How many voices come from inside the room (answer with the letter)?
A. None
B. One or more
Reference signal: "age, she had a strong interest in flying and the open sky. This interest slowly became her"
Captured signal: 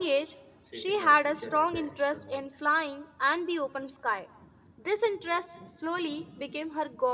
B